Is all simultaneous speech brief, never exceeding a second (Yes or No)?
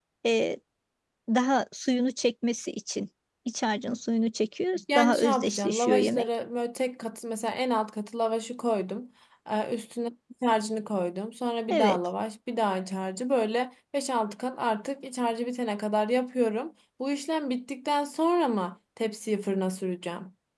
No